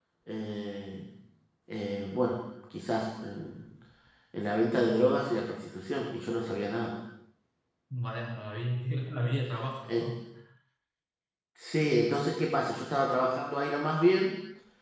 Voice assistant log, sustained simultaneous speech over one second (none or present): none